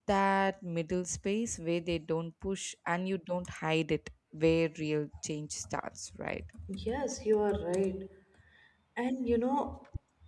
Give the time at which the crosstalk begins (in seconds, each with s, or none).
none